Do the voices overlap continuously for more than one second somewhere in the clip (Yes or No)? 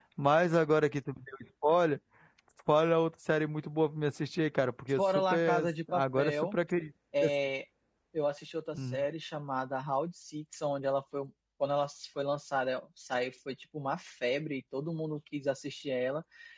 Yes